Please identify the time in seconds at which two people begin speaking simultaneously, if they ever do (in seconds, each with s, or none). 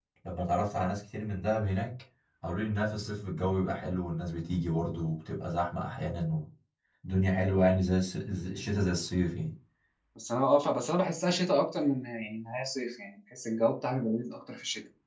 none